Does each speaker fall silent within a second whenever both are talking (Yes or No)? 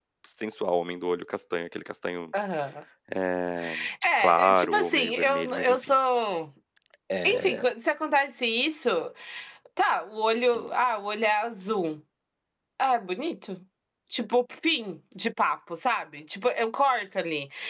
No